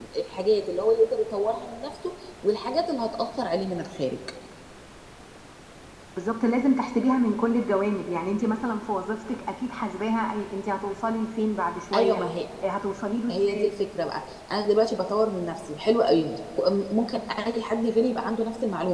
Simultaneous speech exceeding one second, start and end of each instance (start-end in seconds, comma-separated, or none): none